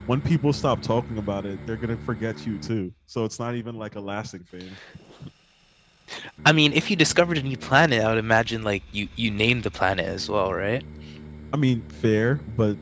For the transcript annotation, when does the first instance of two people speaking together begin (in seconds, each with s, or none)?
none